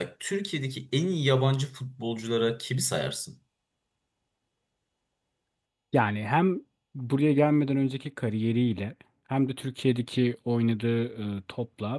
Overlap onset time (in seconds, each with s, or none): none